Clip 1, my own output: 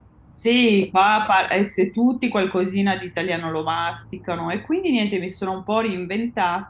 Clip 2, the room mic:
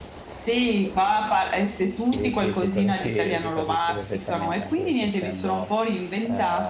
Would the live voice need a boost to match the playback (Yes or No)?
Yes